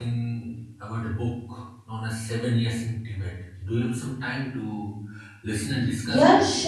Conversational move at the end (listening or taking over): taking over